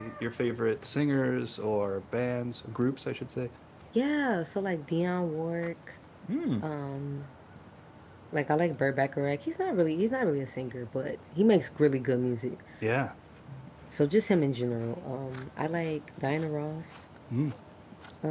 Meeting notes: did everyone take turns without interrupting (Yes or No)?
Yes